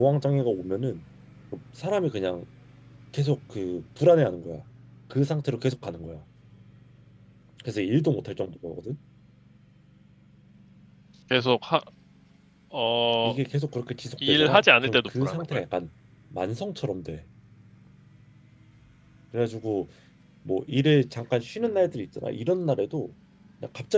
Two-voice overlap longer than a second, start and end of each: 14.3-15.6

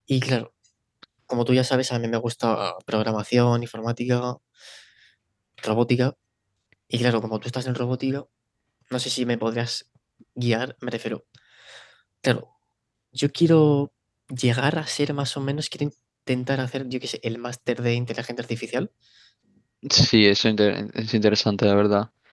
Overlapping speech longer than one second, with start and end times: none

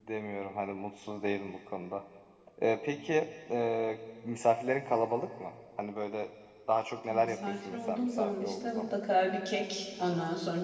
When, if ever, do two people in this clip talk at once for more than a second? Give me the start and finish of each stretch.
7.1-8.9

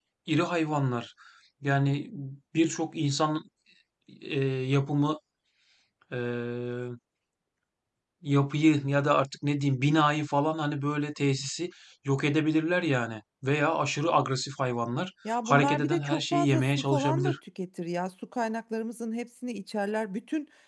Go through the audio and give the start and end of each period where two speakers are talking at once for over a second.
15.5-17.4

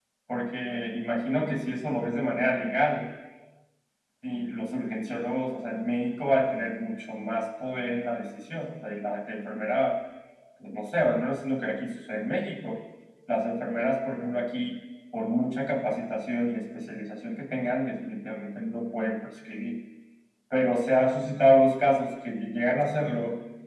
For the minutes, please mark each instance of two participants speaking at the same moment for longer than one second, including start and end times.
none

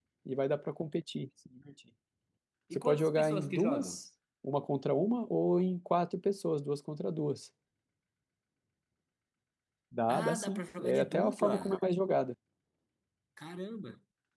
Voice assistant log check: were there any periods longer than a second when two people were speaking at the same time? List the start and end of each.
2.7-4.0, 10.1-11.8

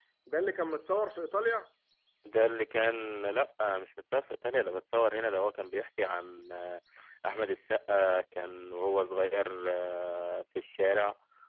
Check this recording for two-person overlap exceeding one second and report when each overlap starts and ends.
none

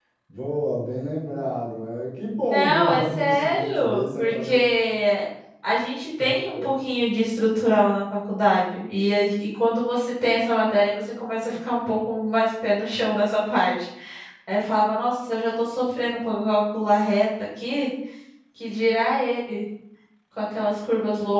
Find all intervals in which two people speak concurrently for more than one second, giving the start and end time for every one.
2.5-4.6

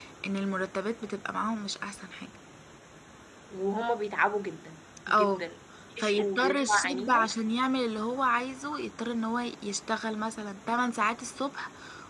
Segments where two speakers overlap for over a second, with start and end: 6.0-7.3

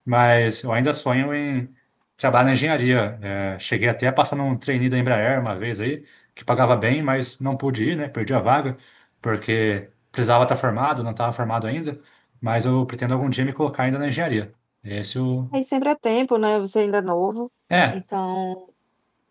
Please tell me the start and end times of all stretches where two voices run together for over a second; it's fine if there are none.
none

